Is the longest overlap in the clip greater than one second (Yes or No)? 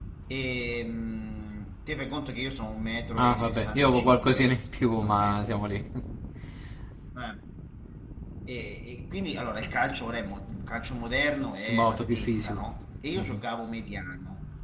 Yes